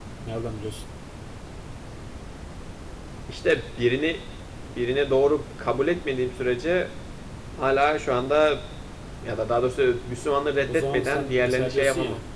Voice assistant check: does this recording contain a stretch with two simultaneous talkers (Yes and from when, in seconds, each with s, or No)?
Yes, from 10.7 s